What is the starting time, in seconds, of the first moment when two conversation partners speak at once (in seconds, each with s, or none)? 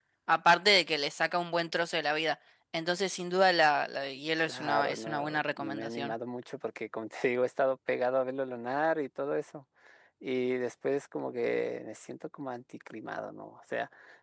4.4 s